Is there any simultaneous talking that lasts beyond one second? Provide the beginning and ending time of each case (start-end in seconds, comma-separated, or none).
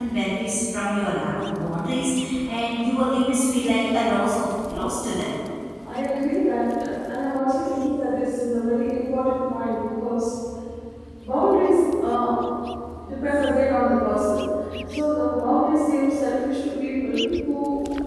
none